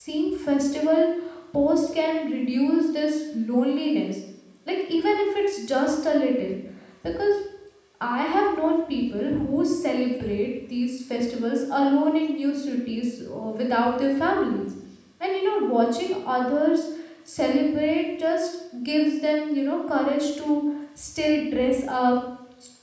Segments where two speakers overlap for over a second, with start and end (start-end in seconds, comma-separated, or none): none